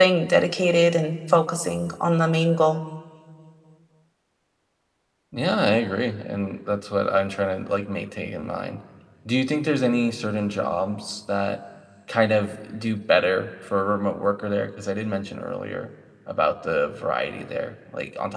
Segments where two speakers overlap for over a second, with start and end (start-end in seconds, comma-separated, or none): none